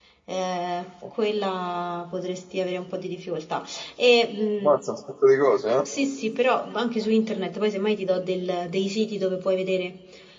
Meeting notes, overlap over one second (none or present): none